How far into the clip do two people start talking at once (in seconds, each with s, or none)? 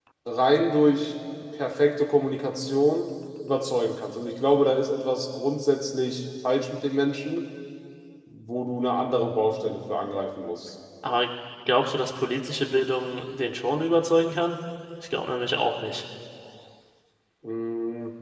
none